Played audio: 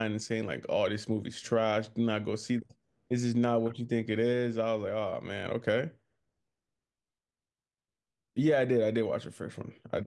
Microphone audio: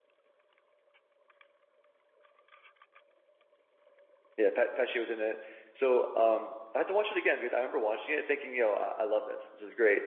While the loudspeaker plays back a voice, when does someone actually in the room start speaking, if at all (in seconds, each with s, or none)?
4.3 s